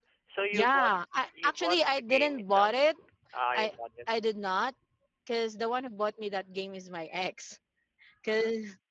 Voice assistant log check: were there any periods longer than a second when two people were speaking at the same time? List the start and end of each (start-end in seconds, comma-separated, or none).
1.4-2.7